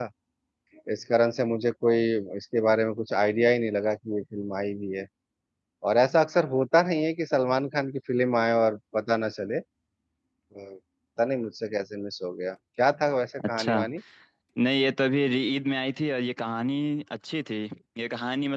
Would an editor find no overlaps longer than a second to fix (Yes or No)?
Yes